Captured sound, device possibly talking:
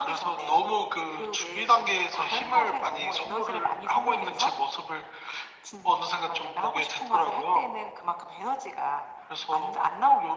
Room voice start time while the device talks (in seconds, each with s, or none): none